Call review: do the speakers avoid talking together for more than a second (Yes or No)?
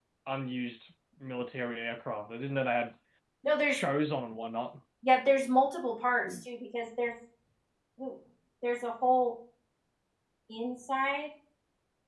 Yes